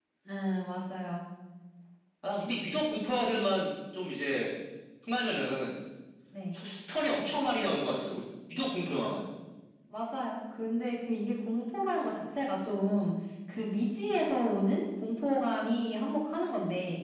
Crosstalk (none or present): none